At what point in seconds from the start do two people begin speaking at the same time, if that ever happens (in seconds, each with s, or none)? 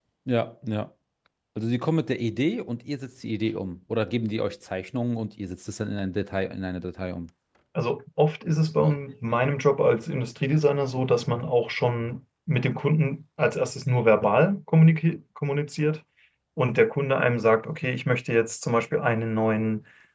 none